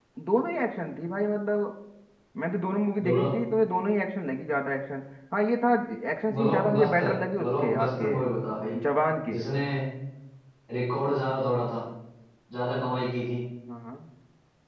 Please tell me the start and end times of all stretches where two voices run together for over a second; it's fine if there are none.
6.3-8.2

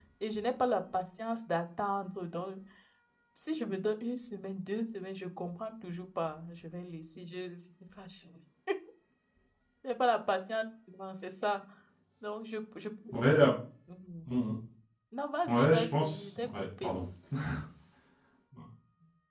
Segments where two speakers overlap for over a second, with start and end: 15.5-16.9

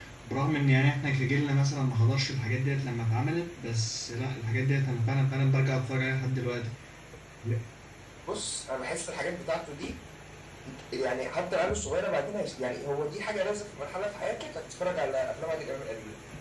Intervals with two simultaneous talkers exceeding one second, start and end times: none

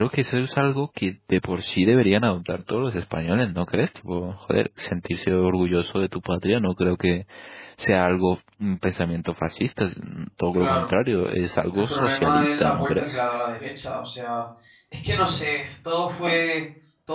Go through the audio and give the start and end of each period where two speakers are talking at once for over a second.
11.7-13.2

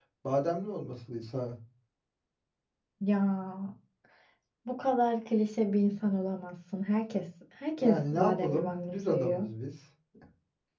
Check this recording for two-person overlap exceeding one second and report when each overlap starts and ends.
7.8-9.5

